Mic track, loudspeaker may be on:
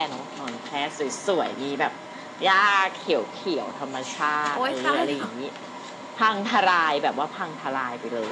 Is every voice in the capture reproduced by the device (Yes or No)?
No